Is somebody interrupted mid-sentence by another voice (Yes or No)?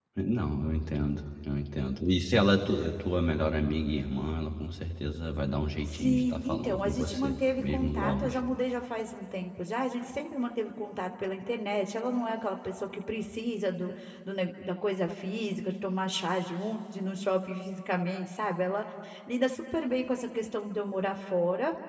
Yes